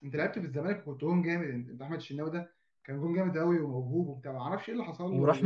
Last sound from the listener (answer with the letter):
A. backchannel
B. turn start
B